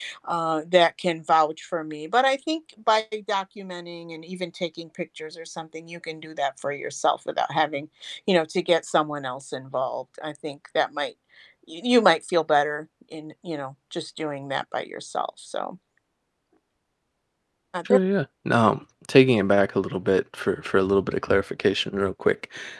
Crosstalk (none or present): none